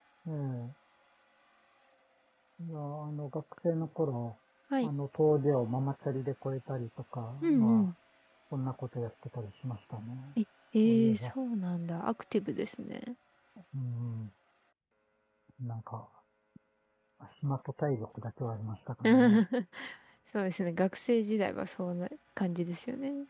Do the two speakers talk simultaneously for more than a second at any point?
No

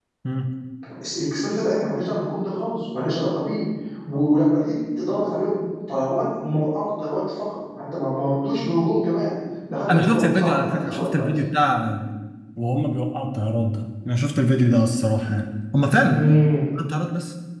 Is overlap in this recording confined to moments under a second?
No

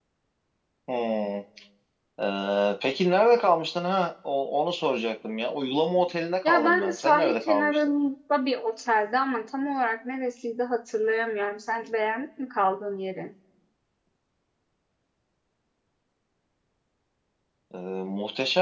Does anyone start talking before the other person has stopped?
Yes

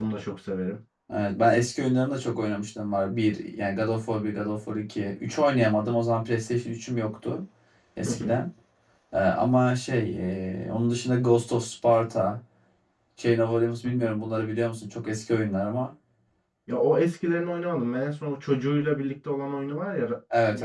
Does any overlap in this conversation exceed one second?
No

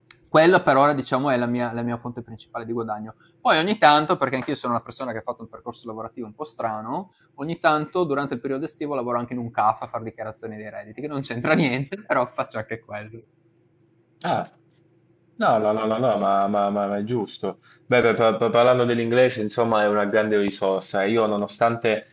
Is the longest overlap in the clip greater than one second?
No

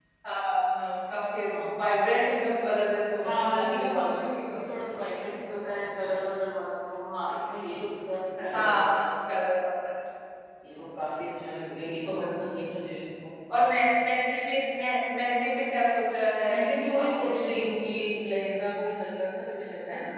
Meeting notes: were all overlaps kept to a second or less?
No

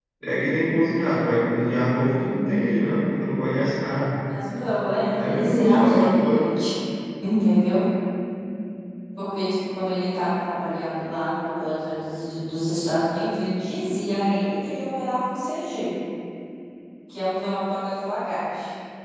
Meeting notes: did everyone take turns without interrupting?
No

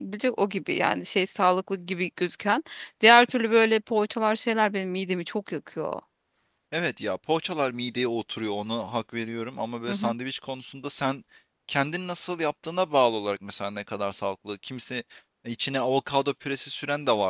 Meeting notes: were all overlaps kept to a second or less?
Yes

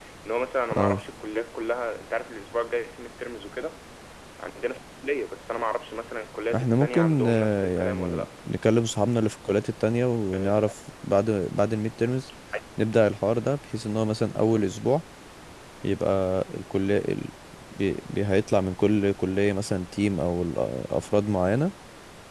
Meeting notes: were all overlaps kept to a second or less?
No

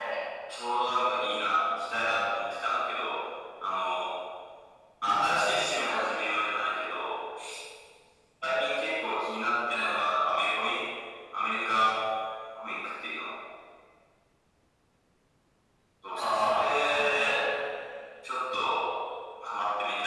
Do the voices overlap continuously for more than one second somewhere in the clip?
Yes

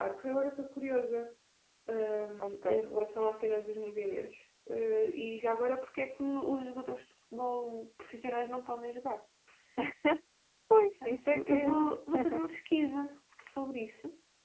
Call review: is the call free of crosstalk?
No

